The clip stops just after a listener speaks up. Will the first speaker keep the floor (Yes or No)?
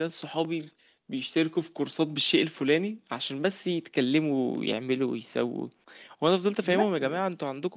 Yes